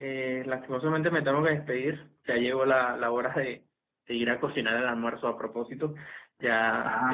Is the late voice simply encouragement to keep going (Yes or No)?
Yes